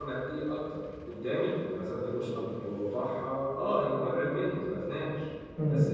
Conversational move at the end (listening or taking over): listening